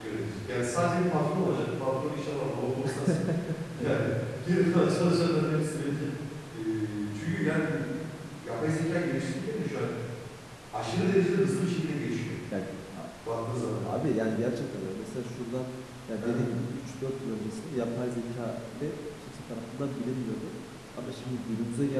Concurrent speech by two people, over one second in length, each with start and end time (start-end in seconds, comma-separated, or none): none